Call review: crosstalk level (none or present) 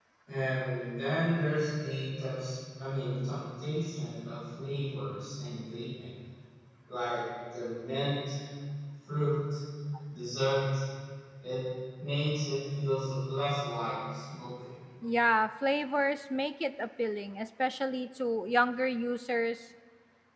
none